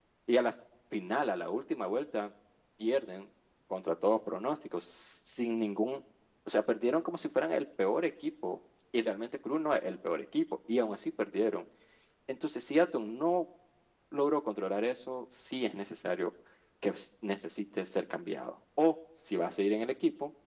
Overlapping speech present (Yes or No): No